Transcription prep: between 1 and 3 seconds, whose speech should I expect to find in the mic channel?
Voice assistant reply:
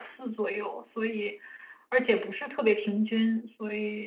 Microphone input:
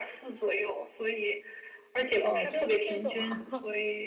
both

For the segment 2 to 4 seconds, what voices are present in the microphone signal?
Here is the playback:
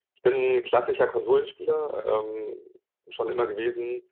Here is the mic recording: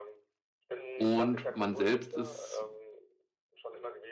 both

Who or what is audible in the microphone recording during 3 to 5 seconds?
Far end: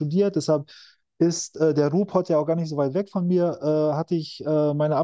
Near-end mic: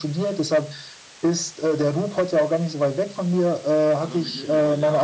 both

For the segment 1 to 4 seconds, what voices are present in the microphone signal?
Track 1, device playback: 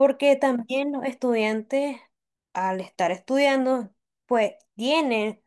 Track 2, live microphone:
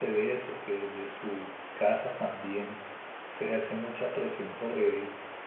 user only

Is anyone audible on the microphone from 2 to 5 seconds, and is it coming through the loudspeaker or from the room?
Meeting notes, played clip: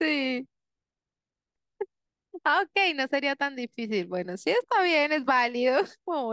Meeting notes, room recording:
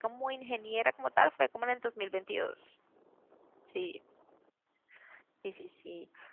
user only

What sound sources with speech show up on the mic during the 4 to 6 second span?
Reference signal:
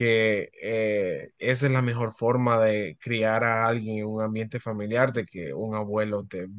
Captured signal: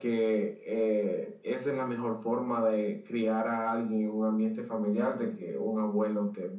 echo only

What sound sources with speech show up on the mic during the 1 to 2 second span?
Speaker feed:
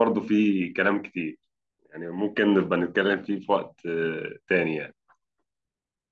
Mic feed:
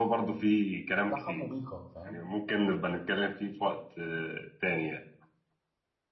both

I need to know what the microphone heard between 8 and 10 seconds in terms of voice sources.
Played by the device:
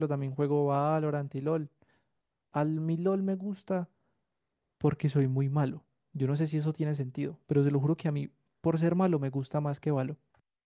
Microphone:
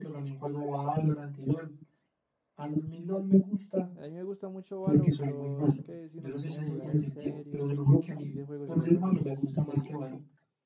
both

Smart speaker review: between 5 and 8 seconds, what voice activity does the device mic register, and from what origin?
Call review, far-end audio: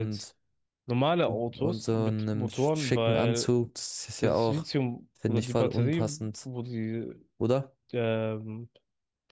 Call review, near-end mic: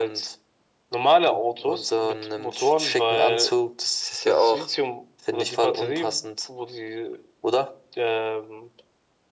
echo only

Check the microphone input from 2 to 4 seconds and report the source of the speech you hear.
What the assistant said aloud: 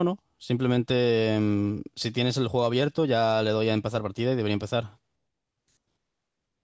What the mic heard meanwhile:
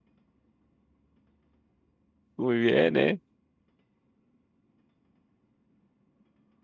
user only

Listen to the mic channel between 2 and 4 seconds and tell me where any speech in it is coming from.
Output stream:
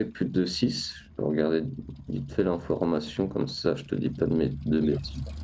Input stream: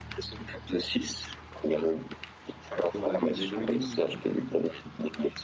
both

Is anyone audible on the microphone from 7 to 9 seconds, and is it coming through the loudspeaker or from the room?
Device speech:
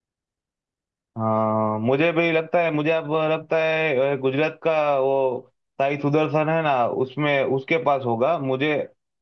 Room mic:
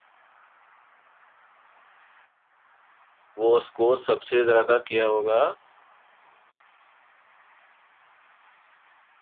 neither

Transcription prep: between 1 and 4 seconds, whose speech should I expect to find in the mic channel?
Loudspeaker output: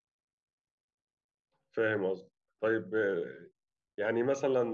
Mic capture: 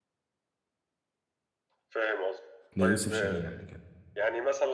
both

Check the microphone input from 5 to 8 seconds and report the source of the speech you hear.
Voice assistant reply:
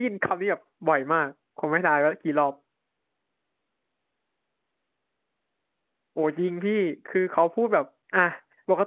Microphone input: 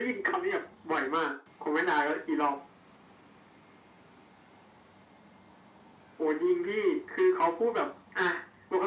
echo only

